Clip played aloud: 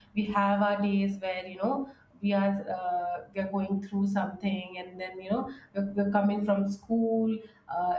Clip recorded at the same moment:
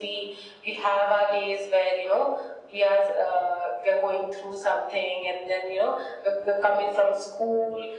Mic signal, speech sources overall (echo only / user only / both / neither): echo only